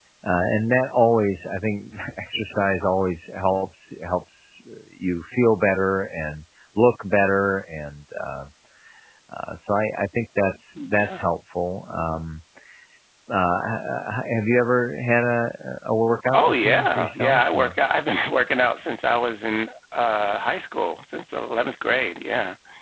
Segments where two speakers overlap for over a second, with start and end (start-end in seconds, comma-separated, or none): 16.3-17.7